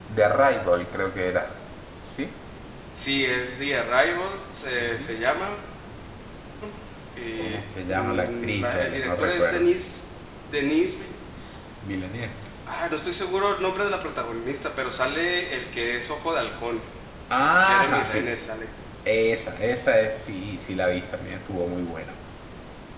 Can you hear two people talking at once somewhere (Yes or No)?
Yes